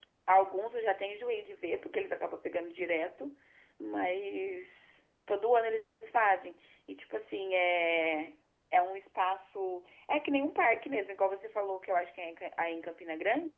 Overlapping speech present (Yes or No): No